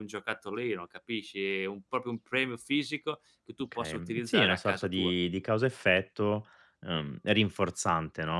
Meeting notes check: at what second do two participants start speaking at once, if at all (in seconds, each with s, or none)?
3.7 s